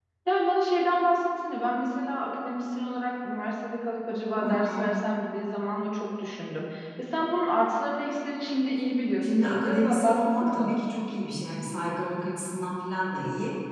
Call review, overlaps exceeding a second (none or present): present